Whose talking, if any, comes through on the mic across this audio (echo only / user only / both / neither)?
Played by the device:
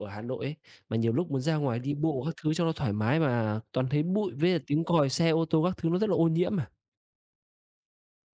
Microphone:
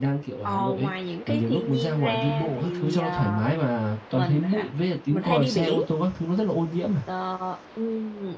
both